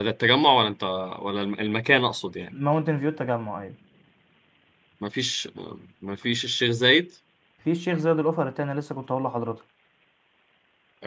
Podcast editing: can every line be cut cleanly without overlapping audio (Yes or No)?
Yes